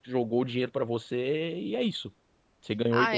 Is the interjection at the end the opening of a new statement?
Yes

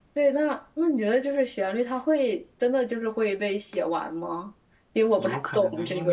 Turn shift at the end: Yes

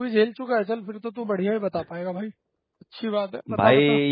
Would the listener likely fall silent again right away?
No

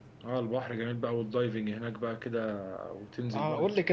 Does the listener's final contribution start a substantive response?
Yes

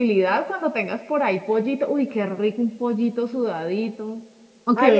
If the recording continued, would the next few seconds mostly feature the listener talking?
Yes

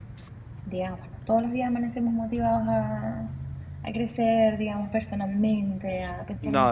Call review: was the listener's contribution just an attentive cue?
Yes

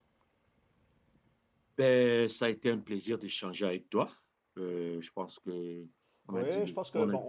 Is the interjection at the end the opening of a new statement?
Yes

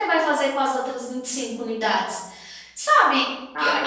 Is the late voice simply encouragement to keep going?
Yes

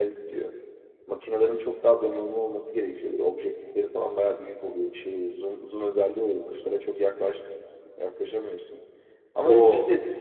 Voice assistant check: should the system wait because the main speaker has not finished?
Yes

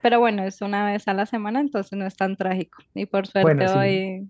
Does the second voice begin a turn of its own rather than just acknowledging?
No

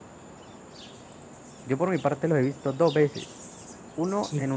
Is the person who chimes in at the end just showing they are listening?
Yes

